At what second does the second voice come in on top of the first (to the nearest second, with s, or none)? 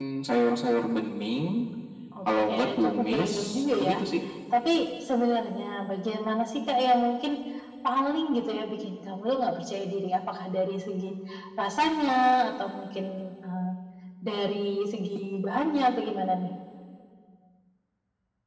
2 s